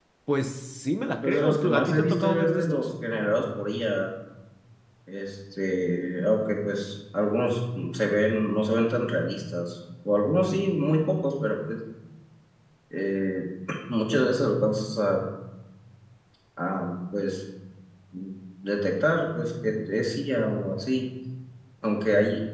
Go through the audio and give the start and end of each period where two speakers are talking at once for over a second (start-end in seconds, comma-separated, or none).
1.2-2.9